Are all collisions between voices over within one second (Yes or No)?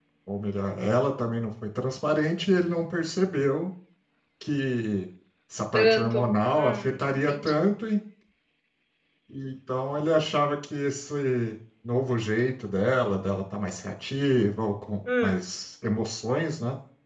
No